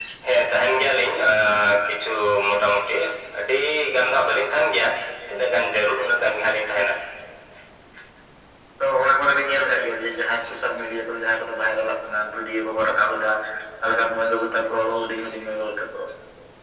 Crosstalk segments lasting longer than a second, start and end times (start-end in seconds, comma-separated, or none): none